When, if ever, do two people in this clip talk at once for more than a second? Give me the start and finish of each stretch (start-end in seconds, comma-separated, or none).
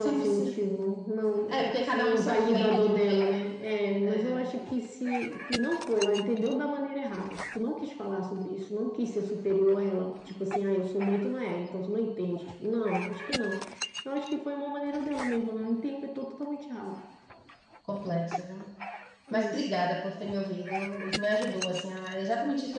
1.5-3.4